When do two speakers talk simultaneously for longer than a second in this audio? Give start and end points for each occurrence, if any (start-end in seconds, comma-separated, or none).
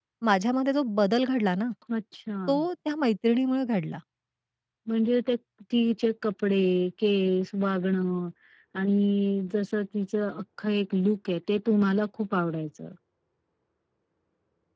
none